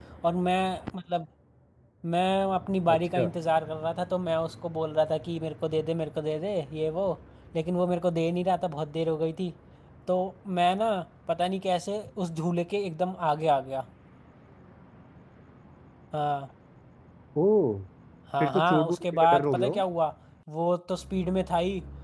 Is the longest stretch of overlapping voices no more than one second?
No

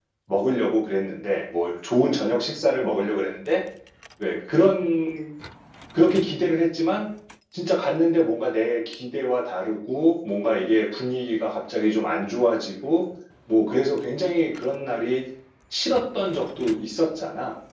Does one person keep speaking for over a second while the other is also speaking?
No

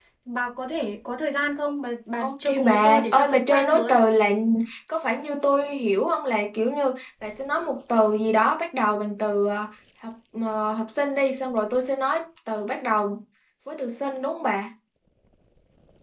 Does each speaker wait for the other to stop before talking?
No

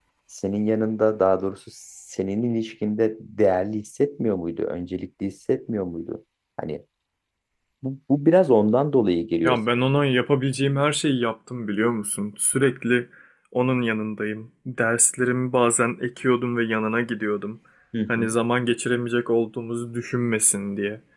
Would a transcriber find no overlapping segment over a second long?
Yes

